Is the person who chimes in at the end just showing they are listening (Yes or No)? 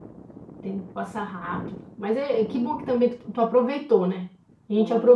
Yes